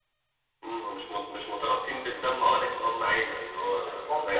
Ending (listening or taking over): taking over